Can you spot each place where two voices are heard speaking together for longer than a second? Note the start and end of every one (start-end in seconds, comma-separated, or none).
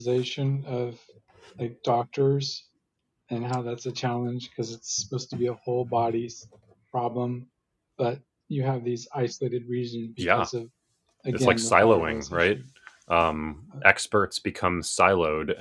11.3-12.6